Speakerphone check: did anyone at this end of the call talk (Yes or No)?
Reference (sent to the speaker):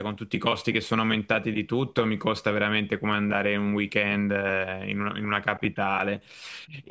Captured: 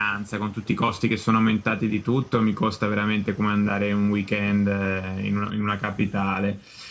No